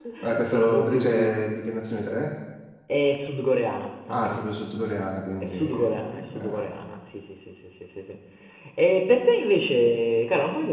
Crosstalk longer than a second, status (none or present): present